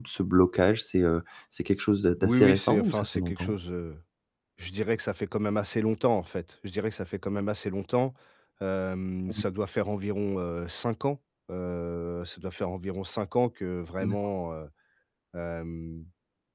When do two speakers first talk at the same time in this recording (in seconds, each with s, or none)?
2.2 s